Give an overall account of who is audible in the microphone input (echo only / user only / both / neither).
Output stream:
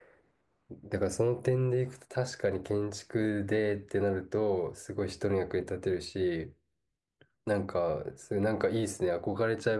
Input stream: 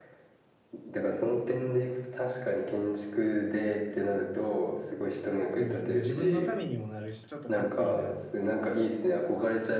both